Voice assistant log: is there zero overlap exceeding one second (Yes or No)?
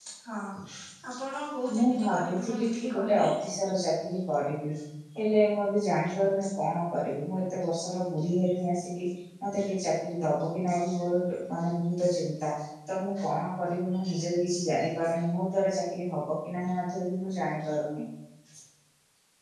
No